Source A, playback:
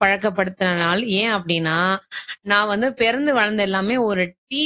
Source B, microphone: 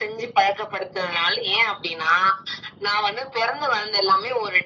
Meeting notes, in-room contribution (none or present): none